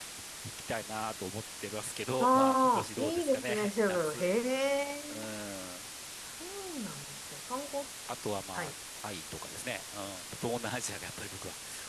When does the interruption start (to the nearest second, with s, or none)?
2 s